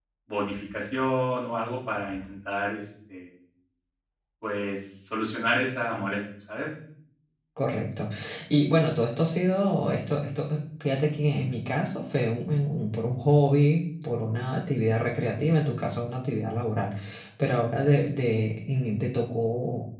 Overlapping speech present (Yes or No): No